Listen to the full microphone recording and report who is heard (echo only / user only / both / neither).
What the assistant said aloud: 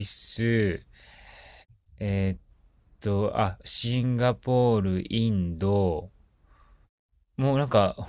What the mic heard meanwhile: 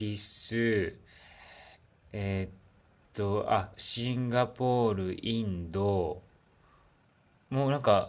echo only